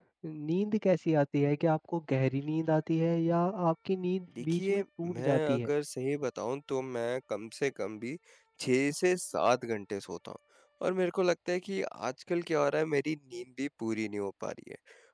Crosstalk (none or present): present